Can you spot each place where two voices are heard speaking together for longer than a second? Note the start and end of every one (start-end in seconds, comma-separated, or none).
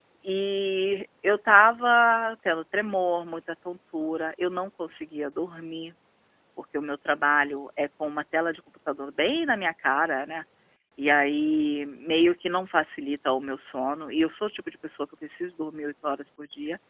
none